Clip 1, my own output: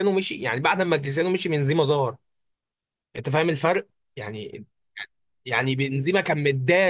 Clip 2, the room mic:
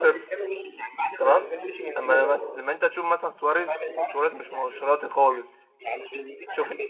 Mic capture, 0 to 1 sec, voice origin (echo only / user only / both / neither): both